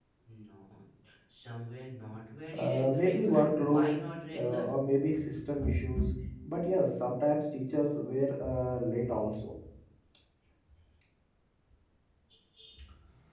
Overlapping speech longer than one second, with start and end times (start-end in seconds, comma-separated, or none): 2.6-3.9